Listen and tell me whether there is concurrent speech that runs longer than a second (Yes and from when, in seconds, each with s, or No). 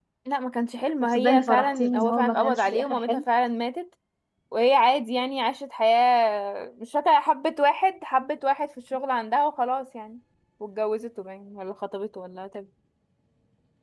Yes, from 1.2 s